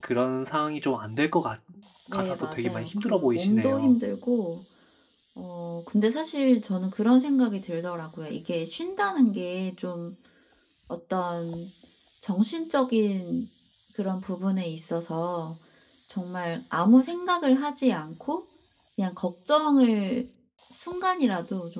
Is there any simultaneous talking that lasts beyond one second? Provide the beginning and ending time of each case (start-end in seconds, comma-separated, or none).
2.1-4.0